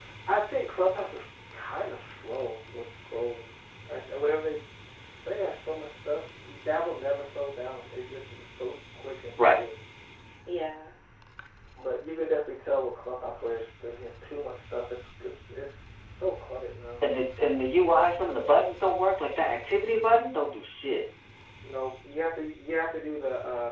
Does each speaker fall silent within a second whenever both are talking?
Yes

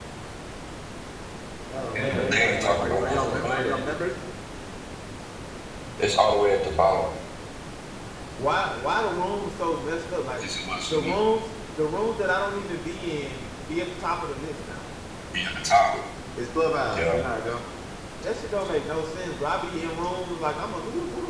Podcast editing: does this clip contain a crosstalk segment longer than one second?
Yes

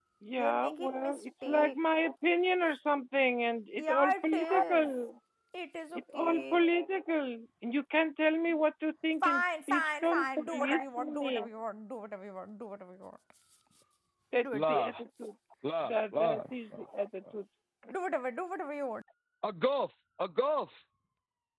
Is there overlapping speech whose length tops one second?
Yes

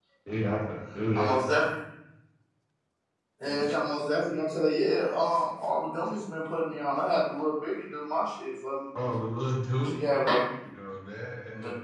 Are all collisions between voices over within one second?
Yes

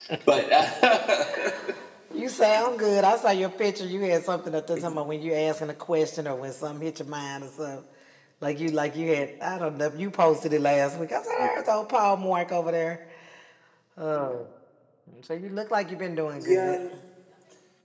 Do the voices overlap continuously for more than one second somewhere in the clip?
No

